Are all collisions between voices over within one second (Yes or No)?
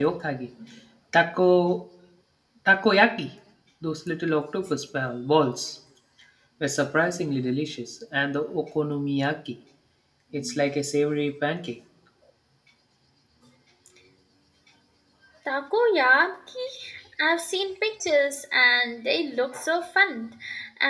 Yes